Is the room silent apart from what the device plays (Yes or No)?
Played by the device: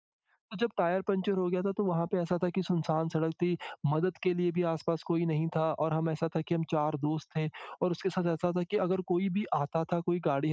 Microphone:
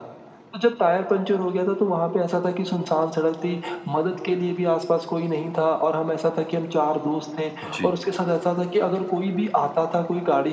No